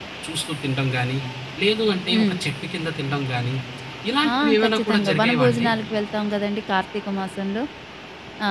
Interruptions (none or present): present